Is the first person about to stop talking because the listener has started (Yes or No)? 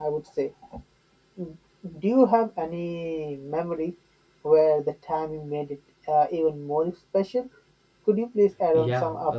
Yes